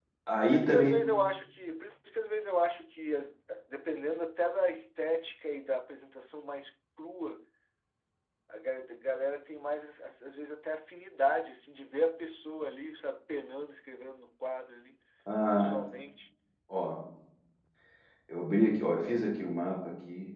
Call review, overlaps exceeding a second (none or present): none